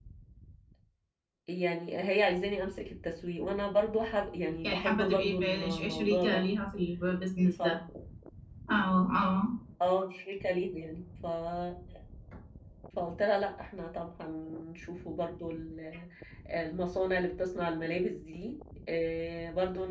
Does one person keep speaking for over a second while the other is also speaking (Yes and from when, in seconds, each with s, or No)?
Yes, from 4.6 s